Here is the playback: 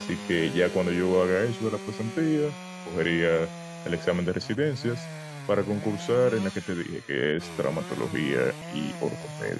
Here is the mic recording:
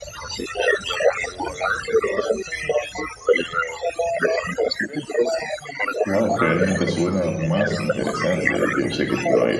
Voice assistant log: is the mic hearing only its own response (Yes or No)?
No